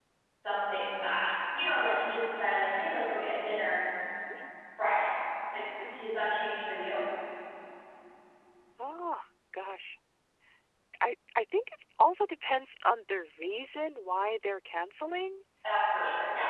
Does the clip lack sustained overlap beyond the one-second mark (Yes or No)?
Yes